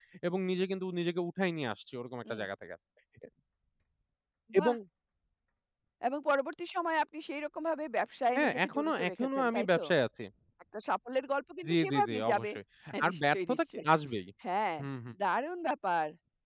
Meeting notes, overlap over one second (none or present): present